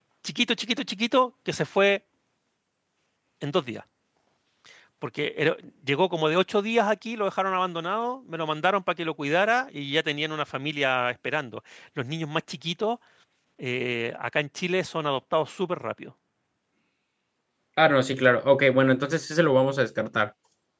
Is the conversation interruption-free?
Yes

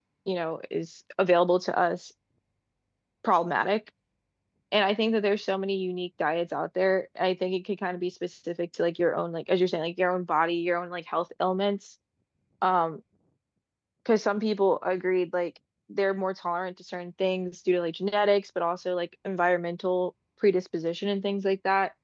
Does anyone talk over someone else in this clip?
No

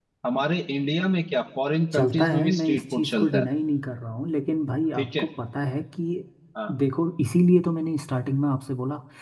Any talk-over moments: Yes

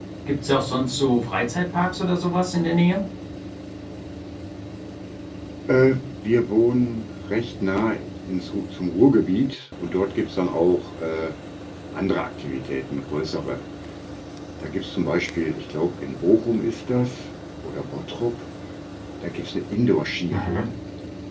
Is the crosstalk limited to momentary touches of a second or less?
Yes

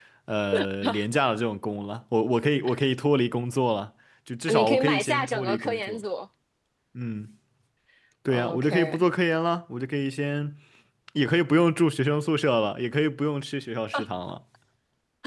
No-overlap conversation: No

